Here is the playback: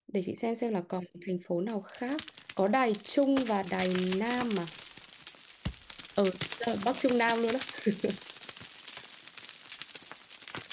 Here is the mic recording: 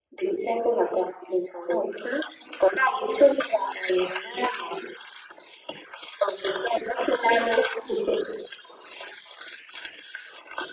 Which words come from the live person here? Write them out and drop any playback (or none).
none